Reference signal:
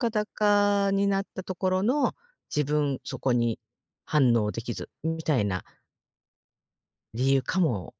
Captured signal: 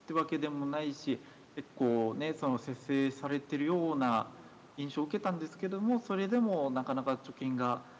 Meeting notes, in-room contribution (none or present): present